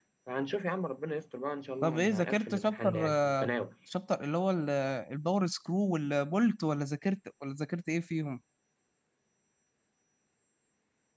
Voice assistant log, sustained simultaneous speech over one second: present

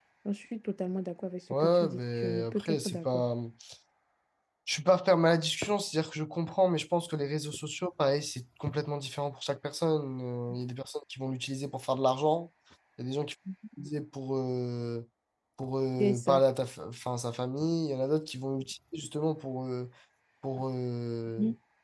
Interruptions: present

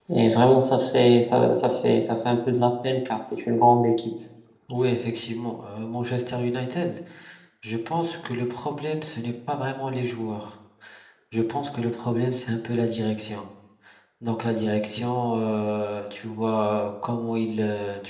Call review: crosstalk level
none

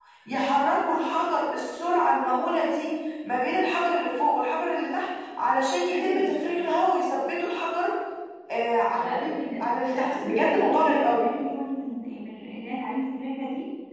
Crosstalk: present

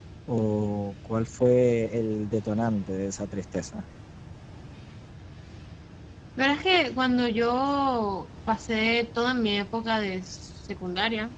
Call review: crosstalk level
none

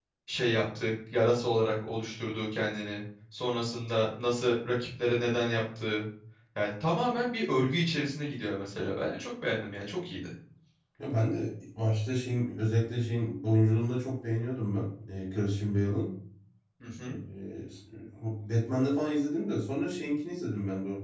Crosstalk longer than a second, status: none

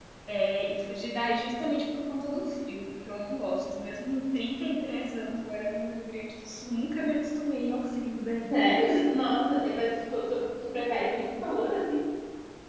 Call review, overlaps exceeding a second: none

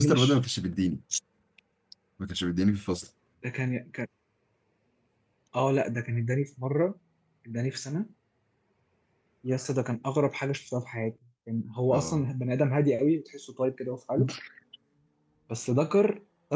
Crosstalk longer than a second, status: none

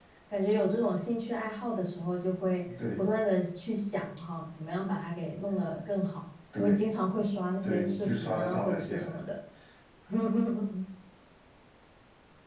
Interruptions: present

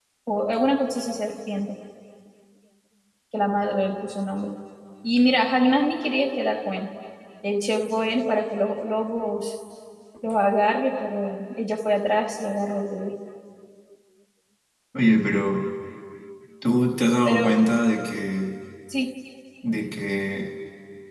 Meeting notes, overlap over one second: none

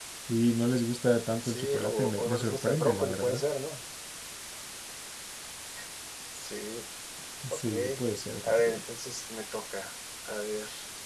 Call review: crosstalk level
present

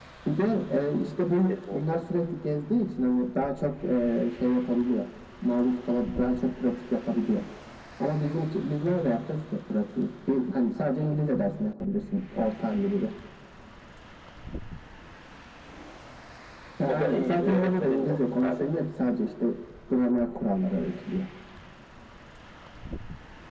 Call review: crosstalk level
present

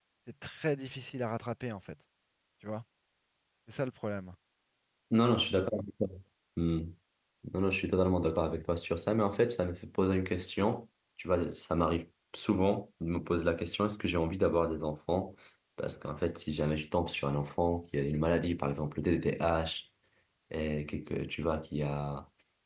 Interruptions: none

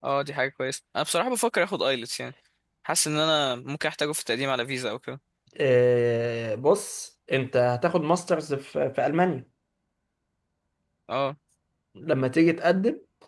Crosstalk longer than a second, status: none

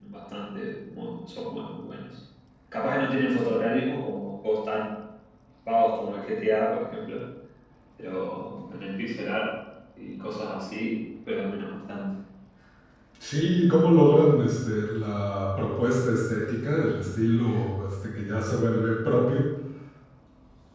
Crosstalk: none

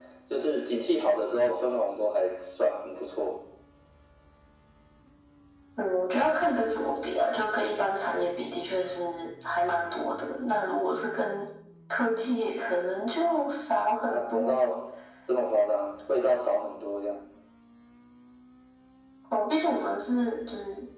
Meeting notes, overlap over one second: none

